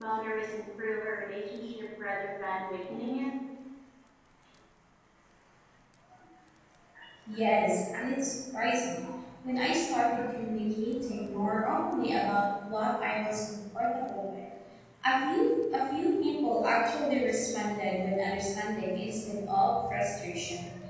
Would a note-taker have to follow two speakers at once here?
No

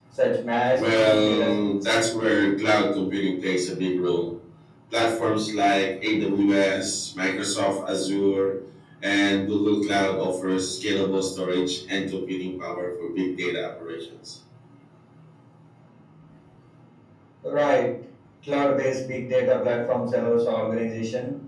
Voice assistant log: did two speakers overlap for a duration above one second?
Yes, from 0.8 s

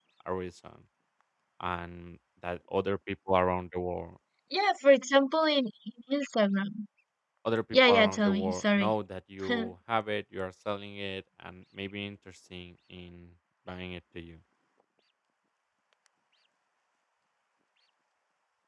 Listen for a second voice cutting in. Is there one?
Yes, from 7.7 s

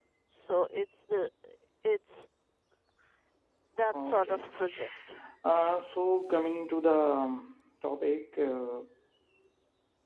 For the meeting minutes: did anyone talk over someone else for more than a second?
No

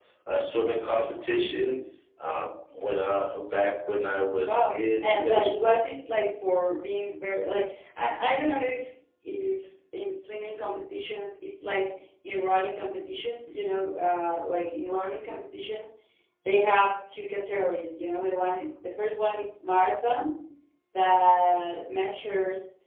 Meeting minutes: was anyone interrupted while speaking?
Yes, from 4.4 s

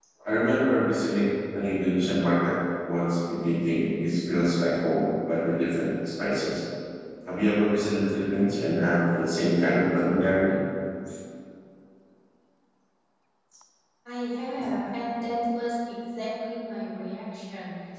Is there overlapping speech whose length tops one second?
No

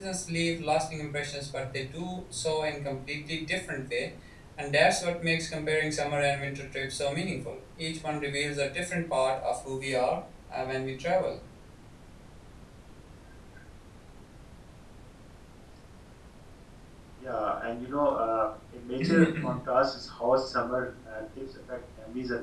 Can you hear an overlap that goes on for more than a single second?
No

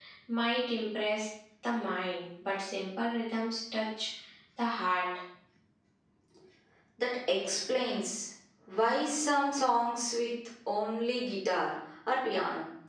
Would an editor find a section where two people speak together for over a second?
No

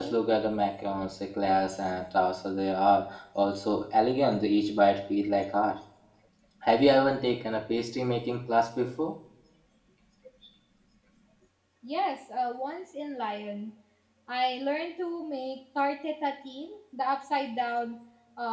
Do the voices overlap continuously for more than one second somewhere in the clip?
No

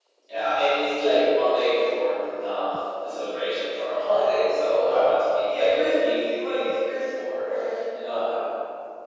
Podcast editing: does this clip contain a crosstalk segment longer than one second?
Yes, from 5.4 s

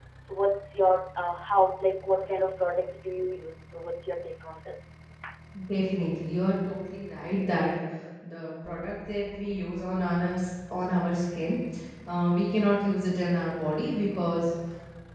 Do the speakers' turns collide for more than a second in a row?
No

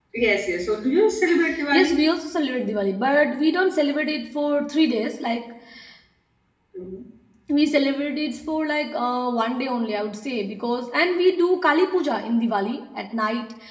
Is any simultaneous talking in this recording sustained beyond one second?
No

